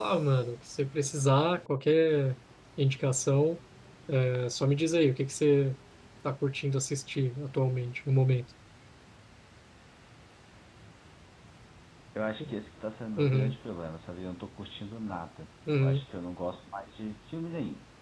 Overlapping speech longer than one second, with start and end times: none

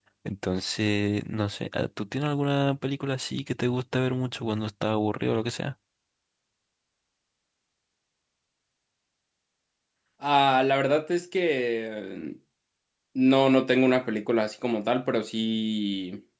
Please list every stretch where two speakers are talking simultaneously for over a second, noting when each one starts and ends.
none

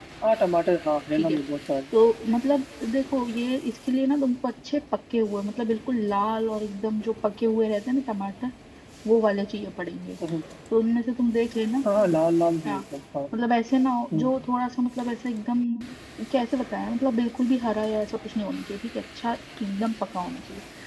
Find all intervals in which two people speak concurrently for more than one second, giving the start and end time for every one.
none

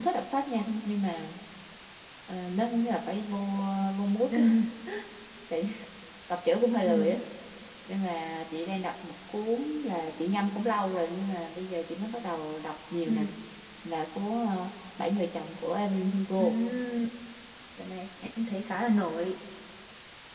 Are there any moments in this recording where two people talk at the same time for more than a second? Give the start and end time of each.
none

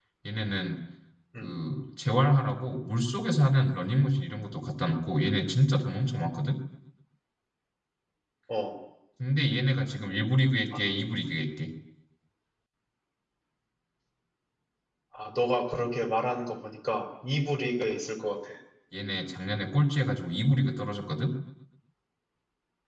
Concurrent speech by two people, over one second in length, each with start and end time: none

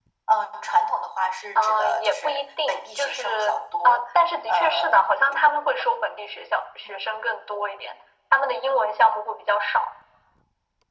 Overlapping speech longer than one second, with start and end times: 1.6-4.0

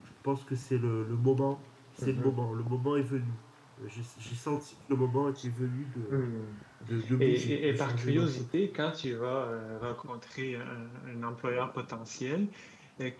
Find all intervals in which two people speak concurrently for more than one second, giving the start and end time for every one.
7.2-8.6

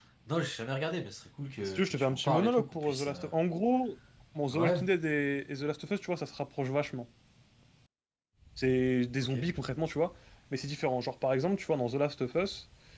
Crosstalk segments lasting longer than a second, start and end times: 1.6-3.3

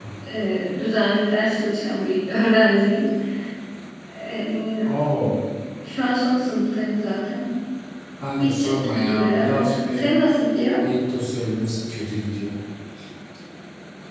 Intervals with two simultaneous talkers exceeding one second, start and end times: 8.4-10.2

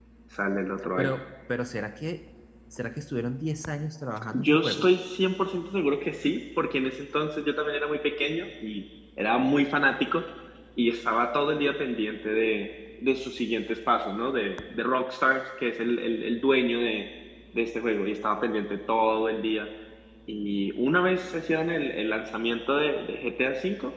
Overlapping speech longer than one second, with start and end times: none

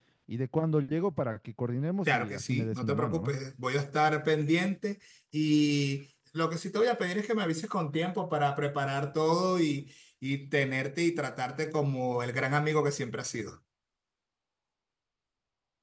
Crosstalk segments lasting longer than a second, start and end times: 2.0-3.3

